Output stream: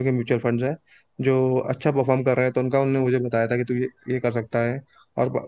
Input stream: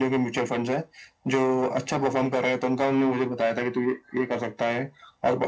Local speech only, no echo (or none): none